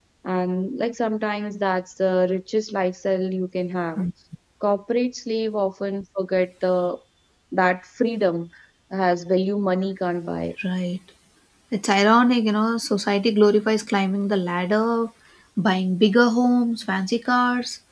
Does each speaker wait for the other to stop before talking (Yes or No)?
Yes